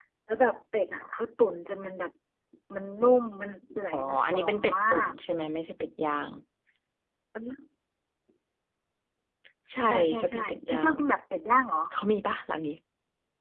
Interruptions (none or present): present